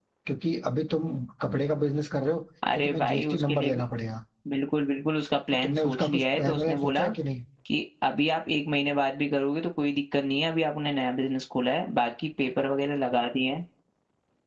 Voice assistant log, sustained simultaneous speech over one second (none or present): present